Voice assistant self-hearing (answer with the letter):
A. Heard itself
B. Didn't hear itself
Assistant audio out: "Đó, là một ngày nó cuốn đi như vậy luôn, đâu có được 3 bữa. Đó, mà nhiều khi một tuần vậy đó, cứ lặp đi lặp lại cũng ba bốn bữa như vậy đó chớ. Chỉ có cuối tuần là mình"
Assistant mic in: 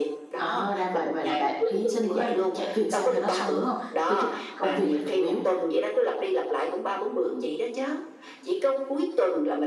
A